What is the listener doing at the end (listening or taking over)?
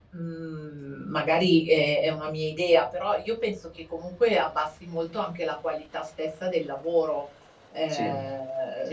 taking over